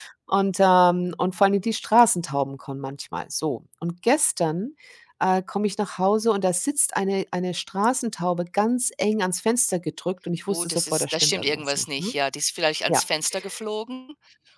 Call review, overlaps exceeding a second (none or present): present